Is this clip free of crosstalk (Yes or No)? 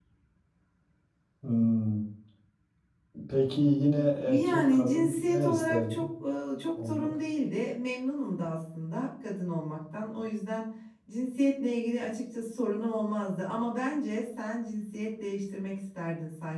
No